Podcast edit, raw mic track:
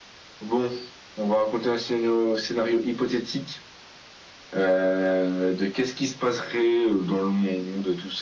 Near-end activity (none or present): none